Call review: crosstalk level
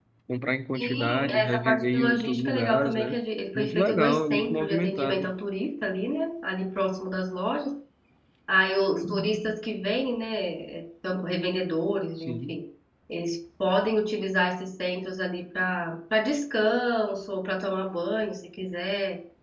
present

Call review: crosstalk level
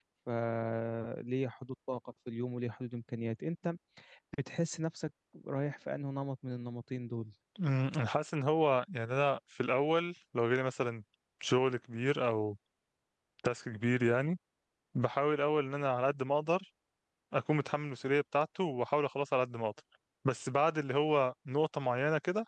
none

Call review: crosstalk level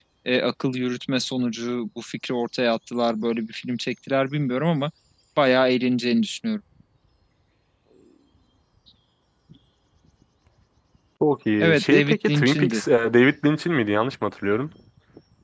present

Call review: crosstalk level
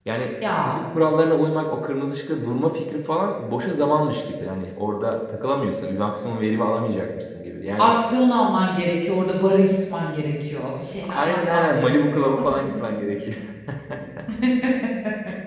present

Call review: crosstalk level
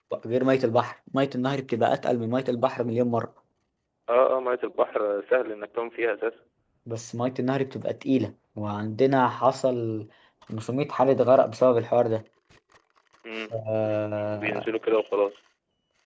present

